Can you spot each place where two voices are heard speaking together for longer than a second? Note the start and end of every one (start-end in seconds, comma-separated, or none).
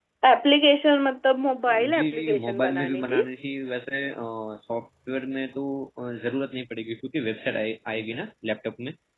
2.0-3.2